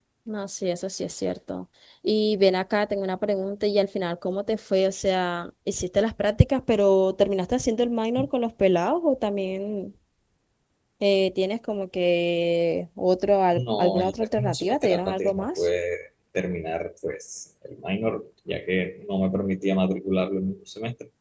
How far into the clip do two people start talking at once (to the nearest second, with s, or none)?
14 s